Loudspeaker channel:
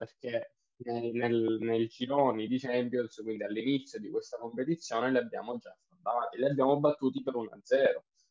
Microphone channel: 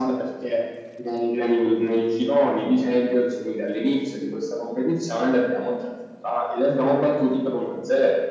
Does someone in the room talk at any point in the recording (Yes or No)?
No